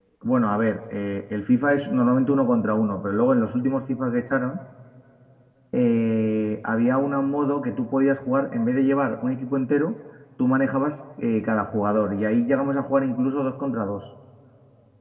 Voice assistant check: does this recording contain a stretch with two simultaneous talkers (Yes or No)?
No